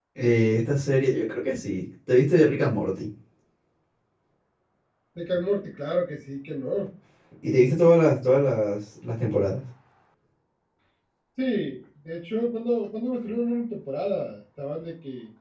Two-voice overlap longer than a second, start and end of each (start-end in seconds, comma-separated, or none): none